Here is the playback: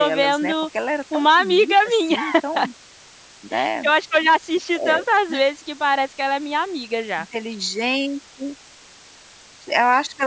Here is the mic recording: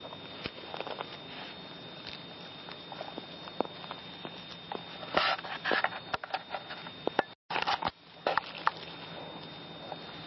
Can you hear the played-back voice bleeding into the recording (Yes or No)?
No